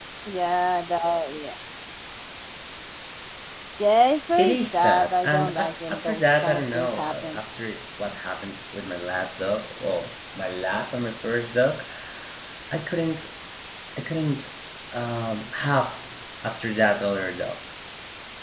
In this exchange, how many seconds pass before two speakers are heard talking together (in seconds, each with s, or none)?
4.4 s